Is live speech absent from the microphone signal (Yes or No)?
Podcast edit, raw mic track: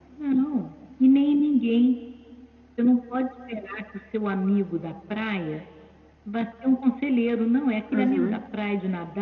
No